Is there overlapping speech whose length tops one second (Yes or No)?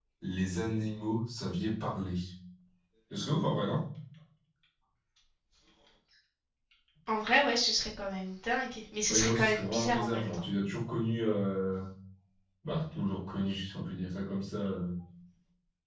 Yes